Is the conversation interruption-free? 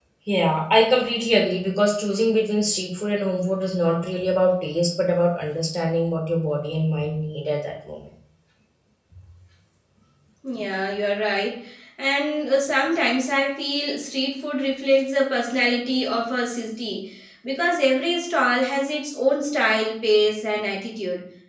Yes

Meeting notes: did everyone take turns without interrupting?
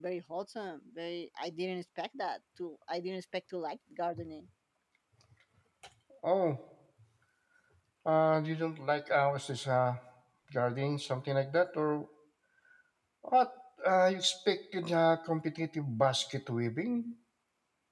Yes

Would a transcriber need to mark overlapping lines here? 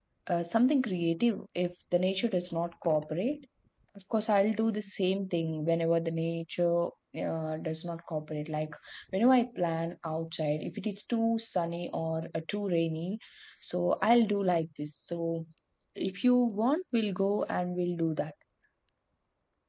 No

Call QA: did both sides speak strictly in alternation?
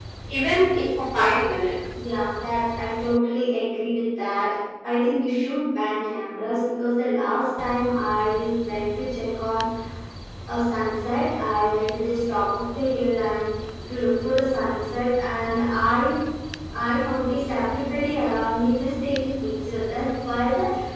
Yes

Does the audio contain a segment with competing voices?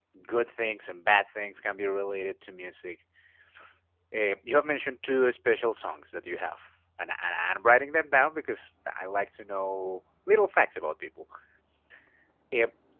No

